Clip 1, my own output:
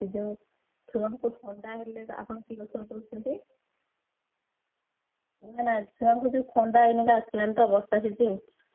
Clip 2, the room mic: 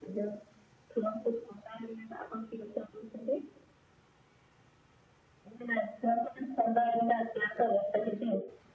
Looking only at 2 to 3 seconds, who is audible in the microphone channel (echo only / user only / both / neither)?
echo only